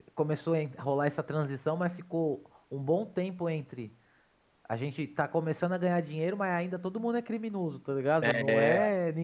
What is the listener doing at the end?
listening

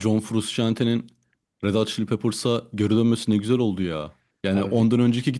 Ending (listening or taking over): listening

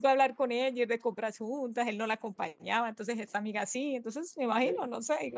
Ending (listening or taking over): taking over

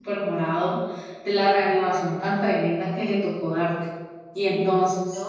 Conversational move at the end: taking over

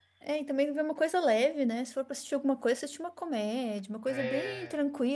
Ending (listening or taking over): listening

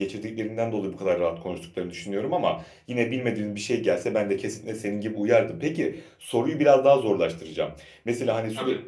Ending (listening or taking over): listening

